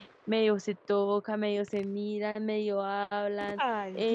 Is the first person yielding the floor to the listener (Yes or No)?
Yes